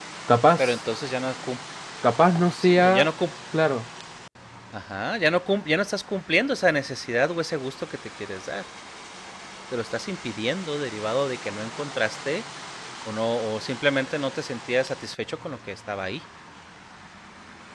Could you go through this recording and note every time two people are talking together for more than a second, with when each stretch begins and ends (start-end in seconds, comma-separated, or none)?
none